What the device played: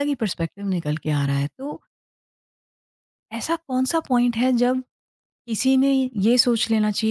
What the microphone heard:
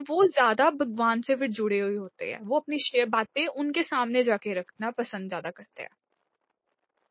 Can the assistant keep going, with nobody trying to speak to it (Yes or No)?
No